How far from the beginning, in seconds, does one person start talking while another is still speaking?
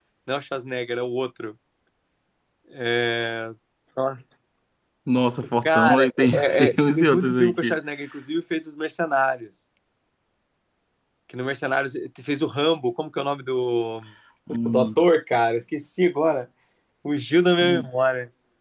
6 s

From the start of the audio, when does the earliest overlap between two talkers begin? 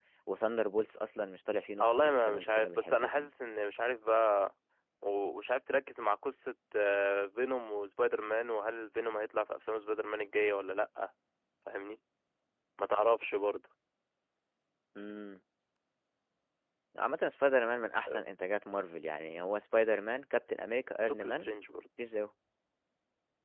2 s

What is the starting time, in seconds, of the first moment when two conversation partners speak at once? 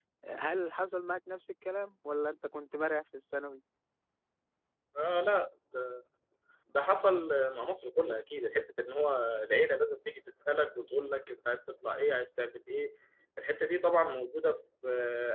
none

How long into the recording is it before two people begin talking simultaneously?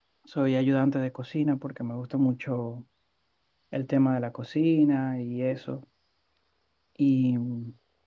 none

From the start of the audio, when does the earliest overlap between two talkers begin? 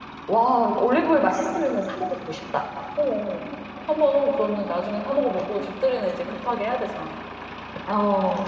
none

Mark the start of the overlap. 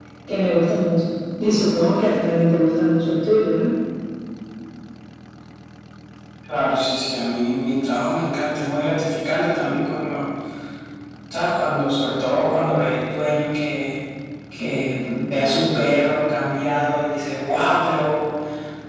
none

